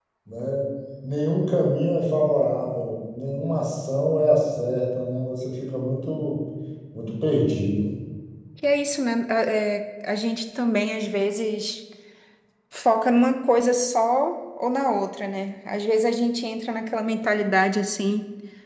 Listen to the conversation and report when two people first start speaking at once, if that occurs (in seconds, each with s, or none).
none